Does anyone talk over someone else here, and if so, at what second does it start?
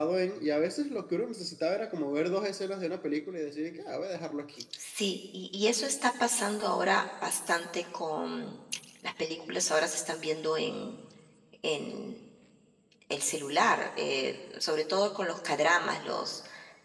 none

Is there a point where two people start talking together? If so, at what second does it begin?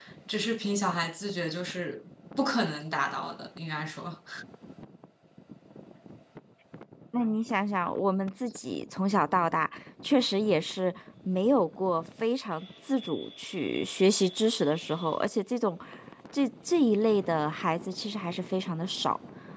none

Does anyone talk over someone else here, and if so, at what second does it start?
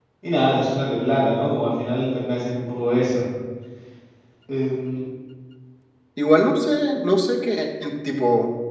none

